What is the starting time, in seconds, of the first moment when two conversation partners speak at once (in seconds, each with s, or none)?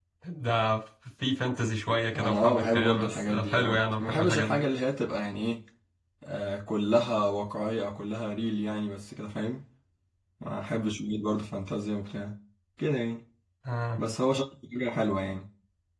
2.1 s